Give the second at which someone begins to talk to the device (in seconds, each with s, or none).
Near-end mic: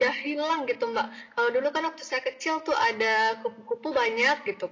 none